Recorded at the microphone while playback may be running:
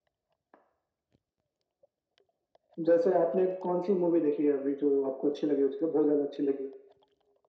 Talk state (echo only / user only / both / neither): echo only